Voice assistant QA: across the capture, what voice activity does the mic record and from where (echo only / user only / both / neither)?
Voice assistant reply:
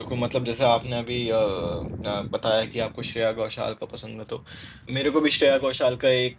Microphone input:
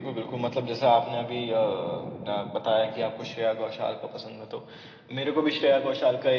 echo only